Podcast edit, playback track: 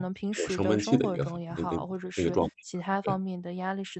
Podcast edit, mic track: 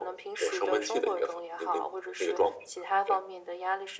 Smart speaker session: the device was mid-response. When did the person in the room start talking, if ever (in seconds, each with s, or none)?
none